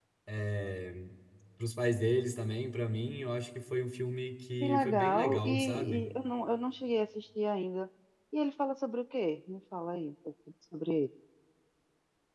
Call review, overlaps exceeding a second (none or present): present